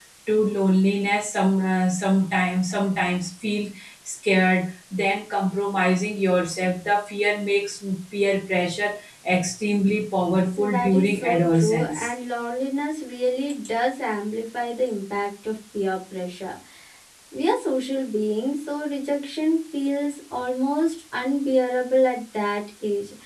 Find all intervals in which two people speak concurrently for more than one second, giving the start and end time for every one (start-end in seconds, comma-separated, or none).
10.6-12.0